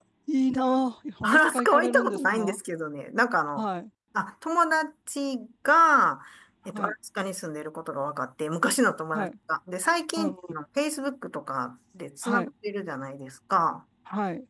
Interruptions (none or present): present